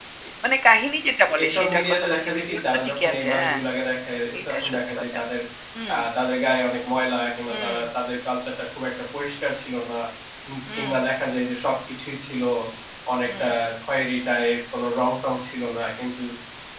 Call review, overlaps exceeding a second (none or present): present